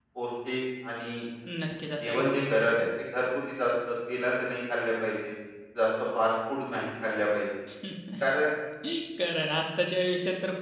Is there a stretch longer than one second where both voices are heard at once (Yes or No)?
No